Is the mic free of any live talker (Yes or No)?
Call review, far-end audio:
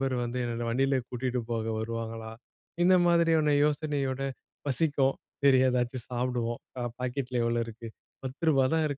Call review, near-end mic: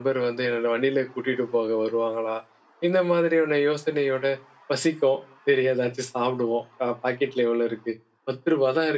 Yes